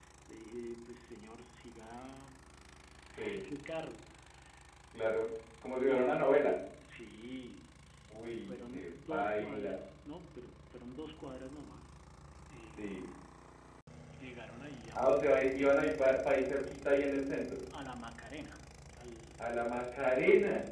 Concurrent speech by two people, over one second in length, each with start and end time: 8.3-9.8

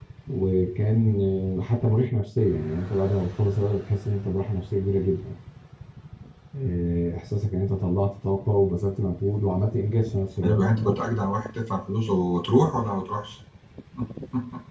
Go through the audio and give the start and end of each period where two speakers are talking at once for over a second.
none

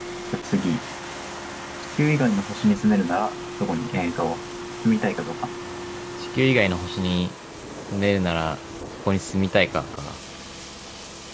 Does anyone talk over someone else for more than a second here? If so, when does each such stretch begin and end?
none

